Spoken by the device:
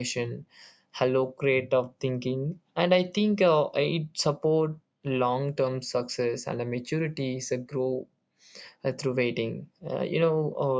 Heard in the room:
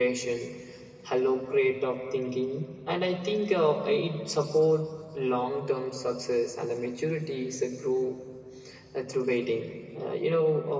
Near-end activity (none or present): none